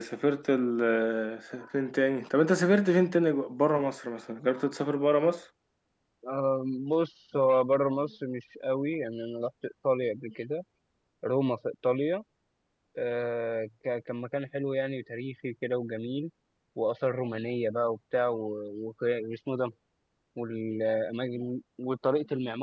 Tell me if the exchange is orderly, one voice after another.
Yes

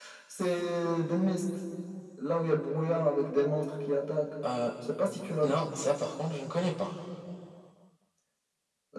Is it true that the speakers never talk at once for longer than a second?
Yes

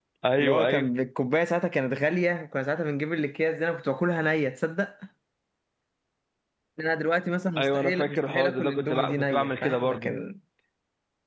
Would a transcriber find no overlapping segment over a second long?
No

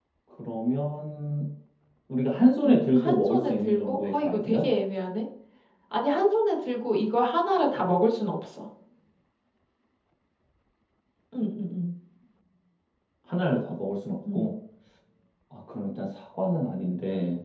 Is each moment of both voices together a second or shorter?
No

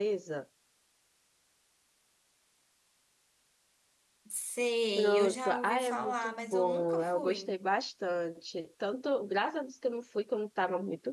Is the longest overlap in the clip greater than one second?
Yes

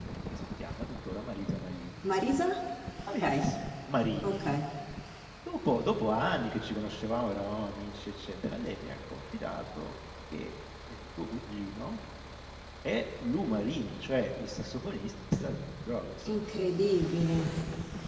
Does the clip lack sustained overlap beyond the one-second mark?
Yes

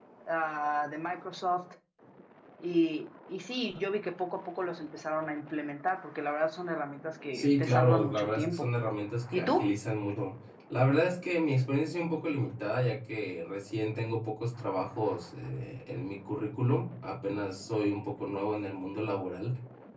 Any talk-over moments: Yes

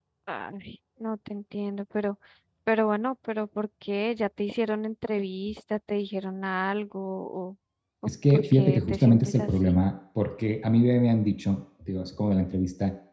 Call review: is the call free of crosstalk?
No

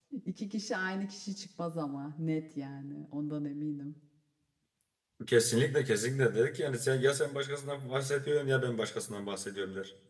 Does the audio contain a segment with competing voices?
No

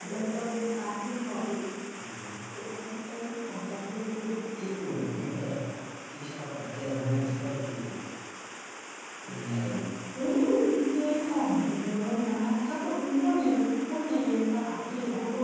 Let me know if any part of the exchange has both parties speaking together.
No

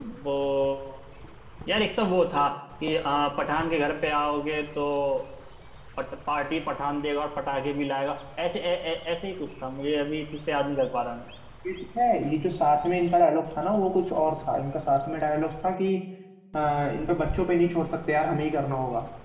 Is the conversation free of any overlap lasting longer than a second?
Yes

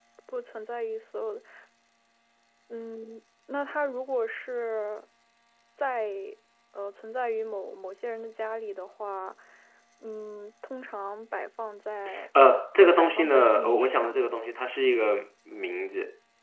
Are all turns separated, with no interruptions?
No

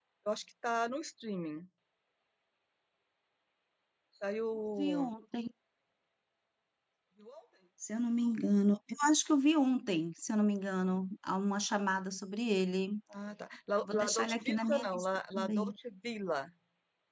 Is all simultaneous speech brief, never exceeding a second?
No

